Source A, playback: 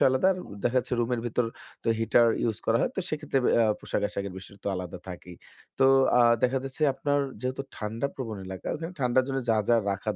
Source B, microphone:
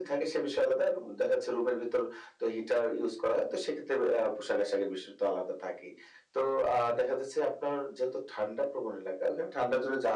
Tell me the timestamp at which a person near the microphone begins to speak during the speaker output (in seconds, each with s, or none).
none